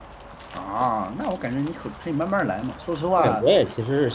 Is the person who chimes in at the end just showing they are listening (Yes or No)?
No